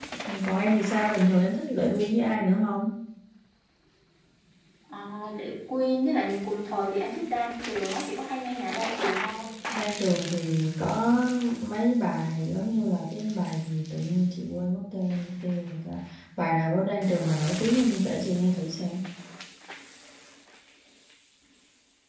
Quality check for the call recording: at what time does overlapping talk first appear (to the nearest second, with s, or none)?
none